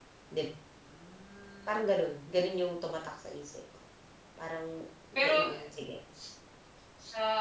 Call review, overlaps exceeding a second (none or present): none